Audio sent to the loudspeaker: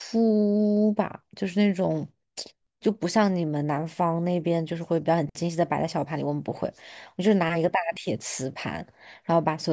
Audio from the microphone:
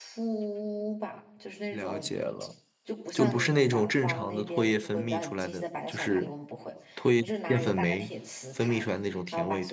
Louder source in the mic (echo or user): user